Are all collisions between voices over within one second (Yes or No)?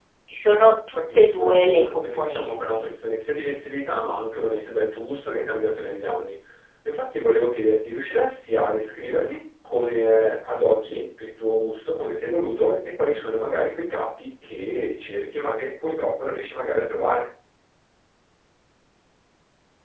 No